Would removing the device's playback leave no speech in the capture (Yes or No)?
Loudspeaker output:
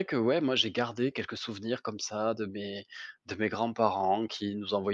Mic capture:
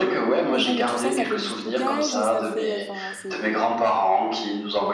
No